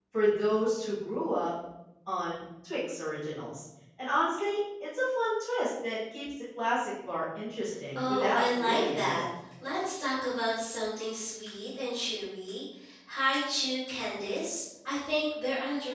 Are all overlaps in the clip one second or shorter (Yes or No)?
No